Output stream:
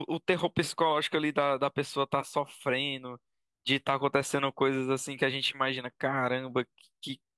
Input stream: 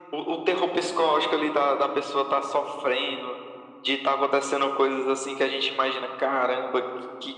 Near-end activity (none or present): none